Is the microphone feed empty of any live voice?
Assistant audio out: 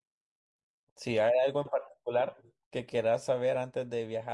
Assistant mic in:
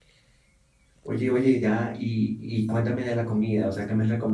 No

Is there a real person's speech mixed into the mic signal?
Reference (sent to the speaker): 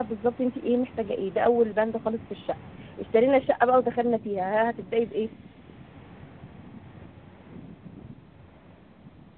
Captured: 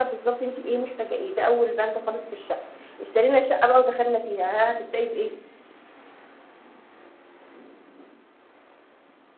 No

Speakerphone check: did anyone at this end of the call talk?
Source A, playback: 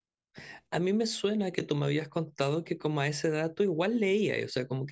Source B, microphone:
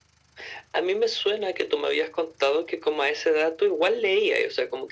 No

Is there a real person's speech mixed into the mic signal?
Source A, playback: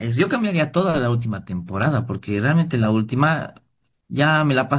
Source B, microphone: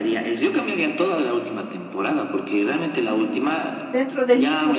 Yes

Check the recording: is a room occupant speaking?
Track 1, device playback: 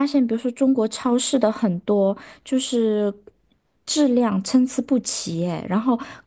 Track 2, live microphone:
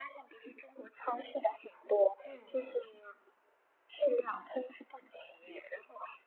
Yes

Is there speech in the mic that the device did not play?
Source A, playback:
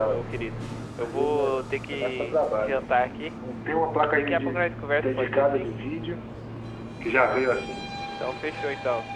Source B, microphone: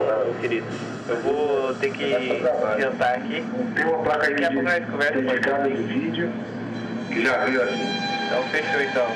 No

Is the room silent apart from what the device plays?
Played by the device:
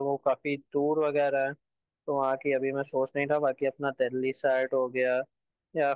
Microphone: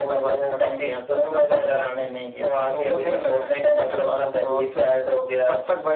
No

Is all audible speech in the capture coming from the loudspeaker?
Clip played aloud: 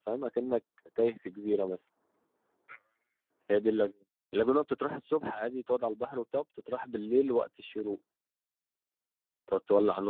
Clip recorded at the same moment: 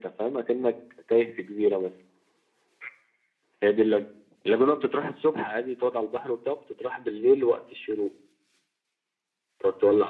Yes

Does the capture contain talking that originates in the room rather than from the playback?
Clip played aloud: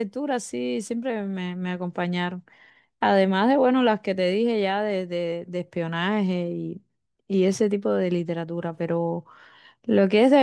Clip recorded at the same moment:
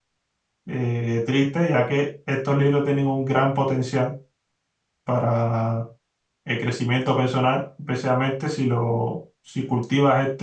Yes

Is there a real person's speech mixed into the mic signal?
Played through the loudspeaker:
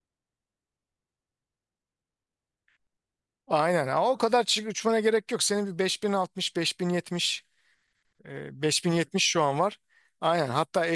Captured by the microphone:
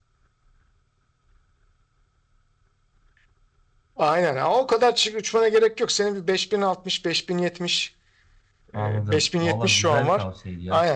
Yes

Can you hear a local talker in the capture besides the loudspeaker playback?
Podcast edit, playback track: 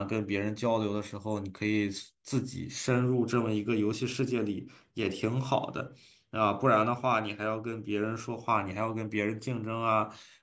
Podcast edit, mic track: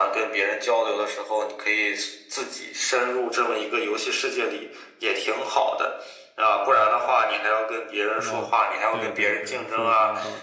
Yes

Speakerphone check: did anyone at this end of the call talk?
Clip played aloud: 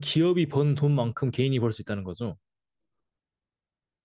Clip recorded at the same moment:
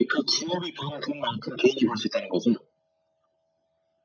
No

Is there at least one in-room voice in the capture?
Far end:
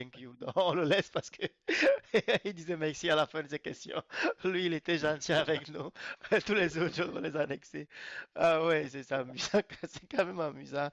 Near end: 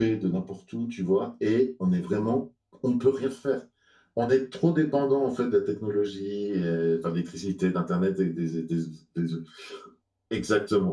Yes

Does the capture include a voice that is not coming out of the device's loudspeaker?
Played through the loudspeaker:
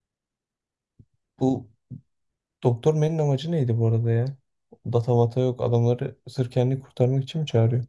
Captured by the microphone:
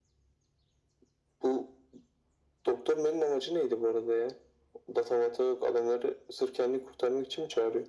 No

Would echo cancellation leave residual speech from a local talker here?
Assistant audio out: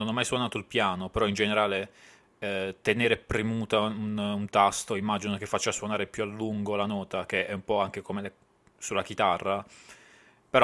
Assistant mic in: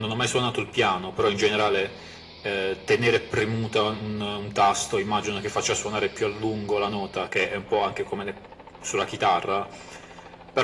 No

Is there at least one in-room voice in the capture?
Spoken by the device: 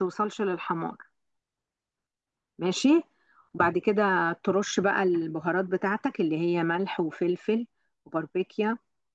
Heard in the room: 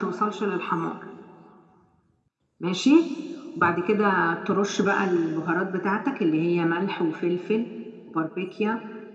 No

